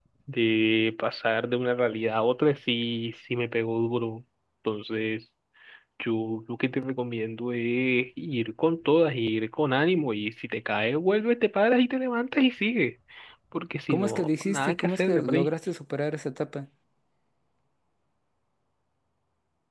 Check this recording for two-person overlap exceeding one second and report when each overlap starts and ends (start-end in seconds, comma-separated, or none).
13.9-15.5